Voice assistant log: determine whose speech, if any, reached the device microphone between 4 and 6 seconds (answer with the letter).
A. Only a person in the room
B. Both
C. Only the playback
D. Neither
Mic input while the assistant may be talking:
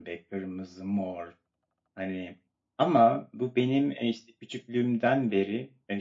C